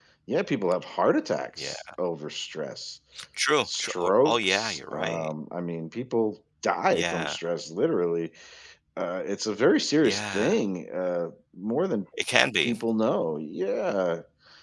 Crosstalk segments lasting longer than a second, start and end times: 3.6-5.3

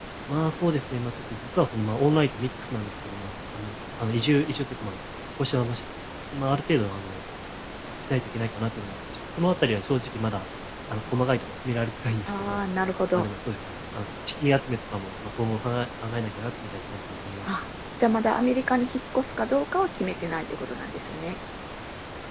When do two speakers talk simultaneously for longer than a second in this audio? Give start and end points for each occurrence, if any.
none

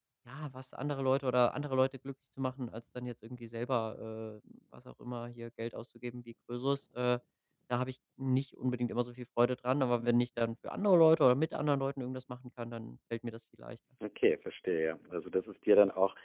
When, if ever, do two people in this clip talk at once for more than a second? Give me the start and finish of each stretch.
none

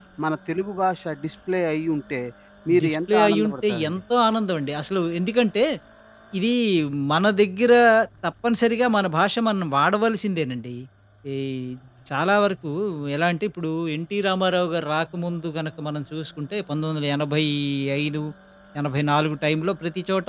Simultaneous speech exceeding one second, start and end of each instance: 2.8-4.0

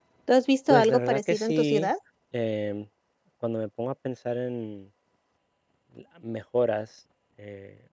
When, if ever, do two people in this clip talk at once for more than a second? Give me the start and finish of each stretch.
0.7-1.9

